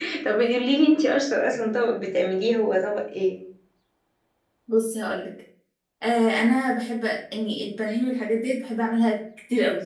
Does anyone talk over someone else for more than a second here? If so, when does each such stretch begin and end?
none

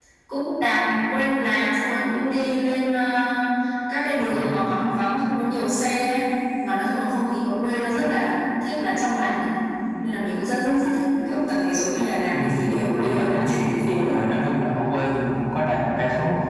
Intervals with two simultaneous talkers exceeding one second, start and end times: 13.0-14.2

